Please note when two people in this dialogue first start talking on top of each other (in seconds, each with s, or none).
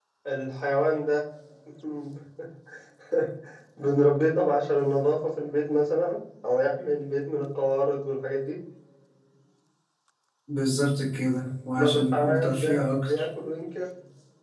11.8 s